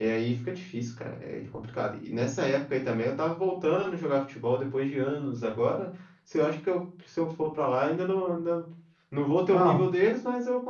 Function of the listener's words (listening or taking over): listening